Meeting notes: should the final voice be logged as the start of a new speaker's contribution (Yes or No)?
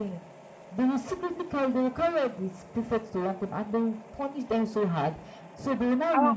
No